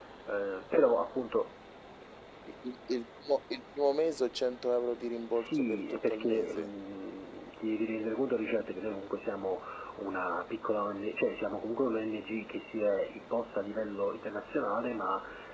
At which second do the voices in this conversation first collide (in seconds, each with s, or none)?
5.3 s